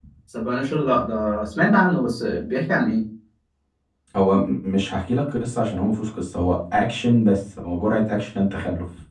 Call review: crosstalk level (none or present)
none